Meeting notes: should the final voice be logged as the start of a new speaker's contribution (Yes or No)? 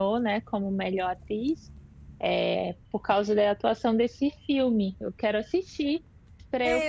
Yes